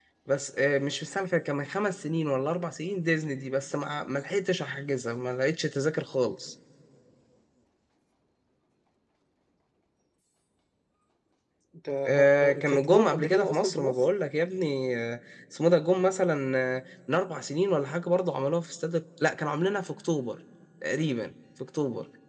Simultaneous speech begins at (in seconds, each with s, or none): 12.1 s